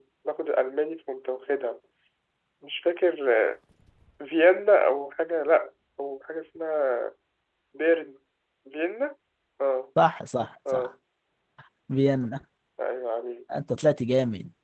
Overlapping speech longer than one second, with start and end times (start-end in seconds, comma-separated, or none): none